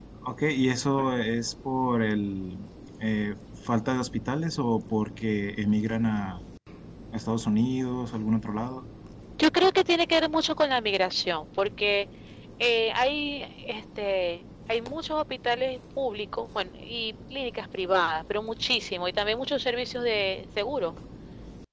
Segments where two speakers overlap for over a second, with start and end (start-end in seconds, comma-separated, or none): none